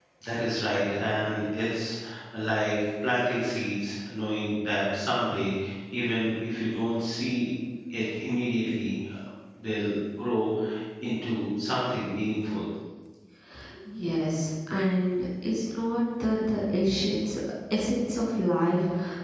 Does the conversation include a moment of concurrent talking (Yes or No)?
No